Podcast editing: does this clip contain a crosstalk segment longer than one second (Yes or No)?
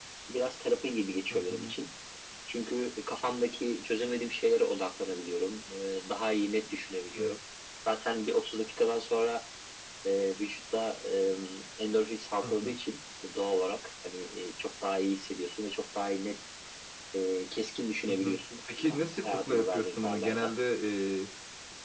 Yes